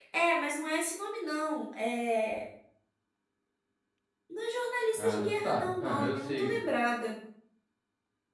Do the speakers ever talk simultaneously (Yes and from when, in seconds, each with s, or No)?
Yes, from 5.0 s